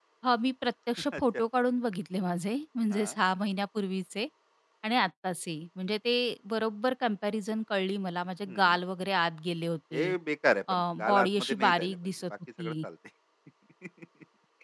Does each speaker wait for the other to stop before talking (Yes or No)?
No